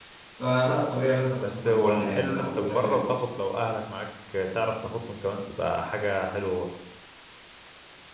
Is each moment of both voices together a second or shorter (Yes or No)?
No